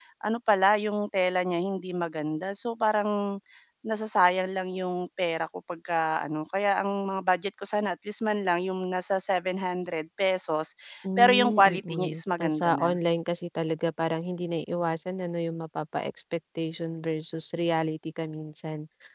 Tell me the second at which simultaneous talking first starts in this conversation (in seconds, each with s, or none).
11.2 s